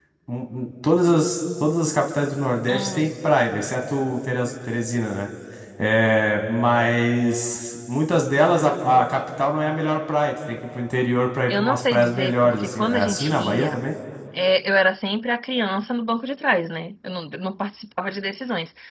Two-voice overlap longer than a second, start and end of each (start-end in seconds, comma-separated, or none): 11.5-13.8